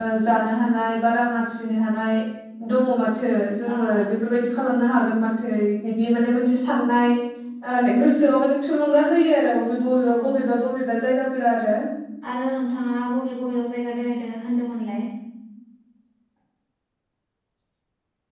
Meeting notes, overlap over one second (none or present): none